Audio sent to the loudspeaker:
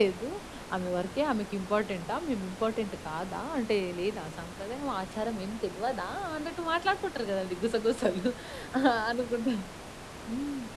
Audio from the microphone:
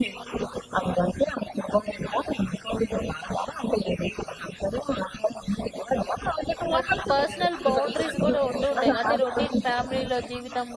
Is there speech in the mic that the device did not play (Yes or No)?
Yes